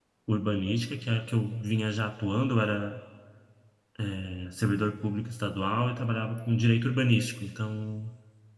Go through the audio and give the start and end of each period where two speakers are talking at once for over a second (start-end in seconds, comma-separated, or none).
none